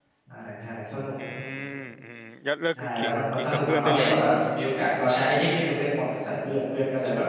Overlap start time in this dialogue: 2.8 s

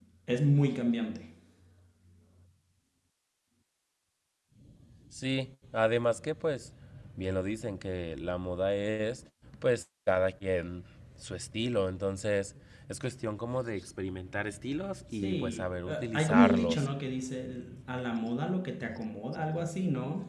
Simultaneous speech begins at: 15.2 s

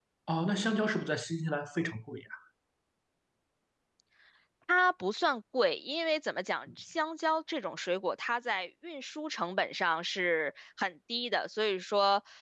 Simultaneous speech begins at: none

